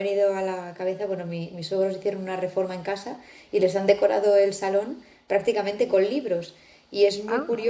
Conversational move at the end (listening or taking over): listening